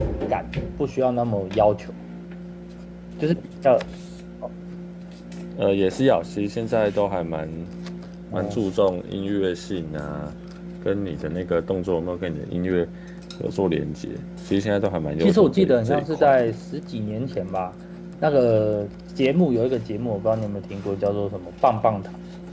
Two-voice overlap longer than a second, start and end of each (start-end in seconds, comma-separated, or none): 15.2-16.5